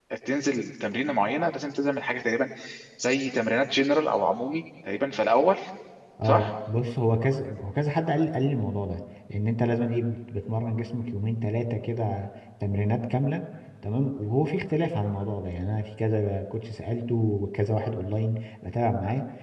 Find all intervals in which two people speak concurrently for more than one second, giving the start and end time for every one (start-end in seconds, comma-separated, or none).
none